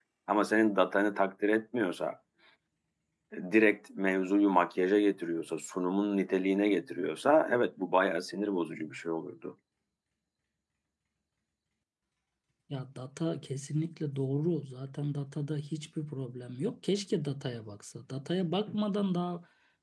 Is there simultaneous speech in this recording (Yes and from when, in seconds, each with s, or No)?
No